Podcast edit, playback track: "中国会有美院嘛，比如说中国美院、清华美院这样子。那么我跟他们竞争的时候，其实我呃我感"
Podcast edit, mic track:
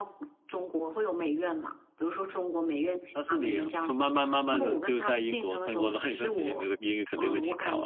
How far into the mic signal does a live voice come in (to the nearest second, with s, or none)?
3 s